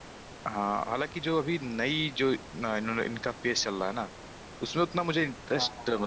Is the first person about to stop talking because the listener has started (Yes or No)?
No